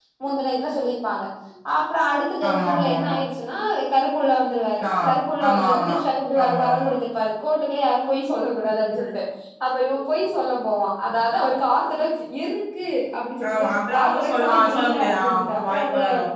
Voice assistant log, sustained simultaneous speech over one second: present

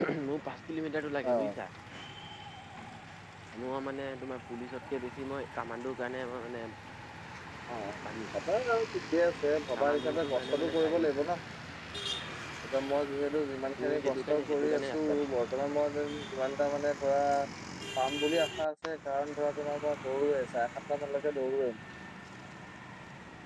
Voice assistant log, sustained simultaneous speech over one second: present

